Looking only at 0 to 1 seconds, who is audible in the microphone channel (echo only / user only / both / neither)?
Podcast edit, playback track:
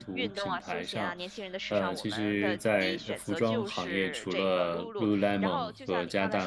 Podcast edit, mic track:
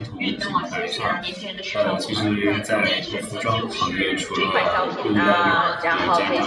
echo only